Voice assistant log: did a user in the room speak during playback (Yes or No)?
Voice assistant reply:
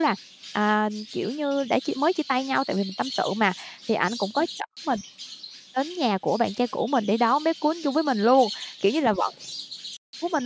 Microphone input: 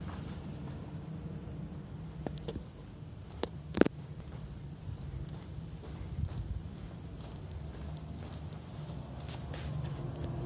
No